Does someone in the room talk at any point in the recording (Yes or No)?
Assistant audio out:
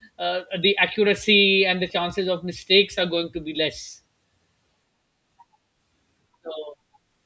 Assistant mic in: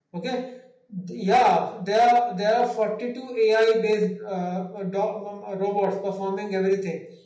Yes